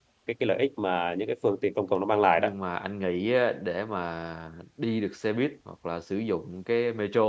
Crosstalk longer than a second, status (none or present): none